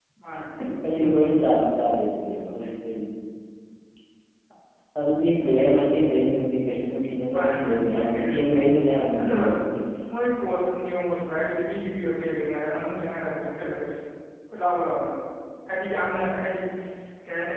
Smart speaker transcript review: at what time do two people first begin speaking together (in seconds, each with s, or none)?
7.3 s